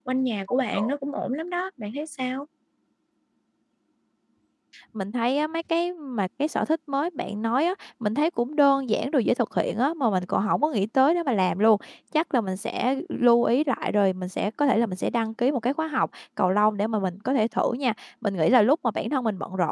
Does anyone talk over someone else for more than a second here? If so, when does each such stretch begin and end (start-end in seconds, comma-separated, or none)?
none